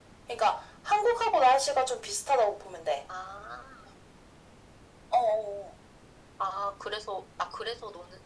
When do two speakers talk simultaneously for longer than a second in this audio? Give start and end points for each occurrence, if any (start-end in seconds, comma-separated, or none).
none